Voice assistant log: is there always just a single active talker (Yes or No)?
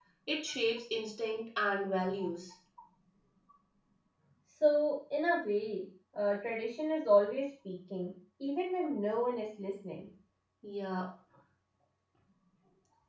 Yes